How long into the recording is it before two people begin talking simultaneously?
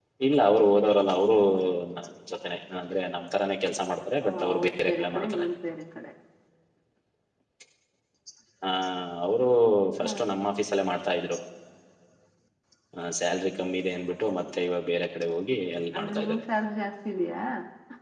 4.2 s

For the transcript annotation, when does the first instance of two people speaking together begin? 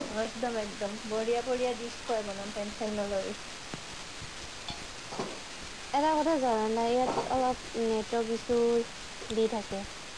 none

